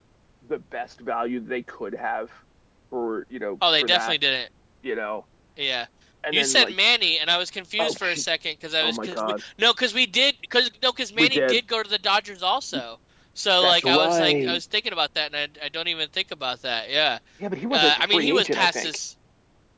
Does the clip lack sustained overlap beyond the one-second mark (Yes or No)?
No